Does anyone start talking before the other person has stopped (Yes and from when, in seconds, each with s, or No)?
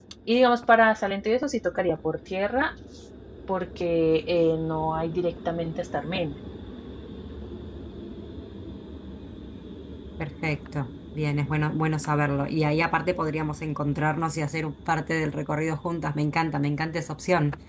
No